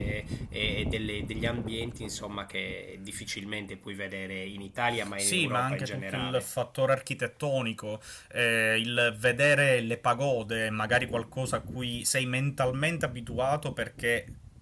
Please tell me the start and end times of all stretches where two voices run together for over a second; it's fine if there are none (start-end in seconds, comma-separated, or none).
5.2-6.5